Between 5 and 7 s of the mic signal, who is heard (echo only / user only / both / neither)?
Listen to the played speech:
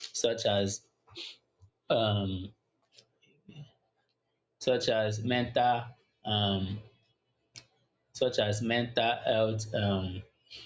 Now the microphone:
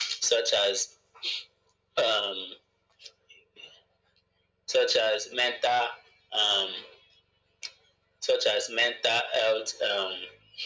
echo only